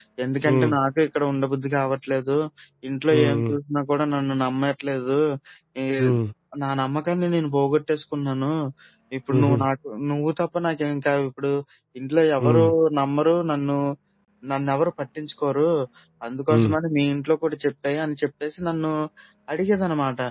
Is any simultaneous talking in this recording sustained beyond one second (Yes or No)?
No